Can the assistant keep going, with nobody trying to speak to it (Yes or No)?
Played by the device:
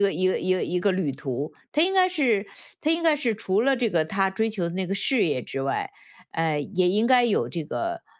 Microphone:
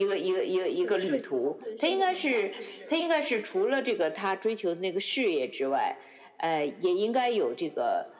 No